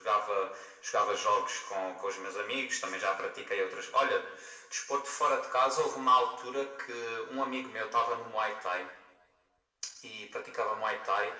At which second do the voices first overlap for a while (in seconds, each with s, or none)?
none